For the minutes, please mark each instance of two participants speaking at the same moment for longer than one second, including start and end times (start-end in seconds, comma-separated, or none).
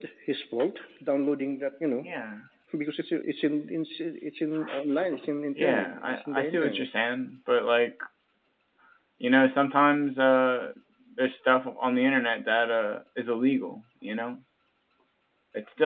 5.6-6.9